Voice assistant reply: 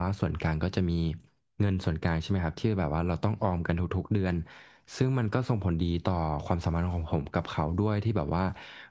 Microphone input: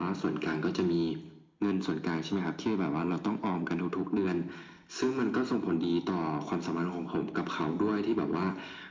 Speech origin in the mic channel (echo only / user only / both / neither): echo only